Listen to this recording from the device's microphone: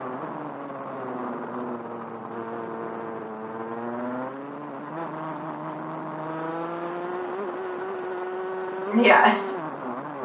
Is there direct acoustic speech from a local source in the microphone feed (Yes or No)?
Yes